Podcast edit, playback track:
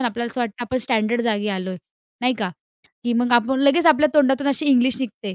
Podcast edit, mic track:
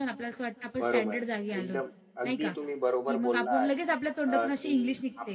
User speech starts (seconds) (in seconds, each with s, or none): 0.8 s